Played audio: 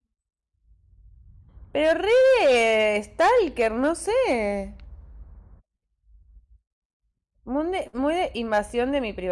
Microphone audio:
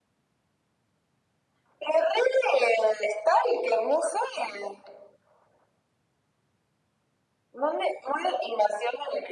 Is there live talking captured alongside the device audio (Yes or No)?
No